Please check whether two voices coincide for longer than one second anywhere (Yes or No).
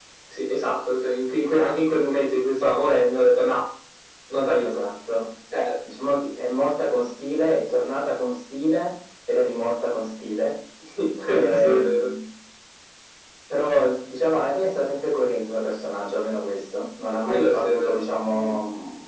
Yes